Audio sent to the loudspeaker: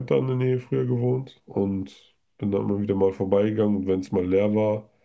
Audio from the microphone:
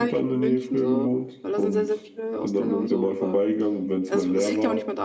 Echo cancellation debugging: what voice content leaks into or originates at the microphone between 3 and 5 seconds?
both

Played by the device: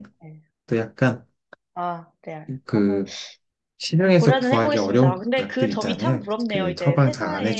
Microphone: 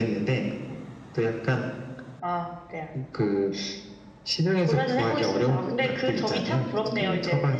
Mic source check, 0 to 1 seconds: echo only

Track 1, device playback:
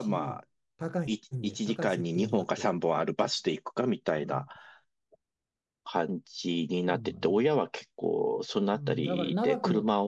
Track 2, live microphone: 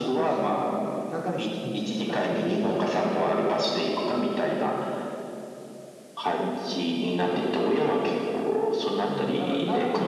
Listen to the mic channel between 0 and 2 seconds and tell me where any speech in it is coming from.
echo only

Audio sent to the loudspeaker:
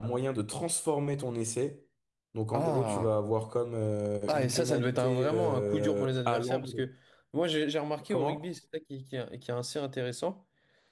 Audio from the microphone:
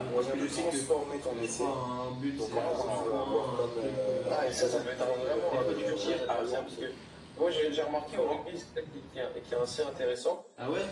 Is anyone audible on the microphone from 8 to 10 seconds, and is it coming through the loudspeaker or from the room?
echo only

